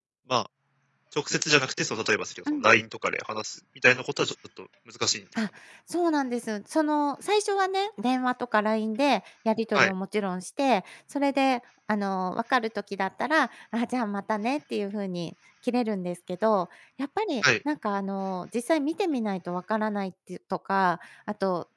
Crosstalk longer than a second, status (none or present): none